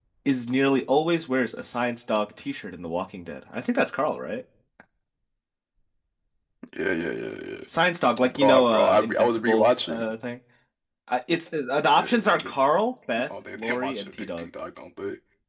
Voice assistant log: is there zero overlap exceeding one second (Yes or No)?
No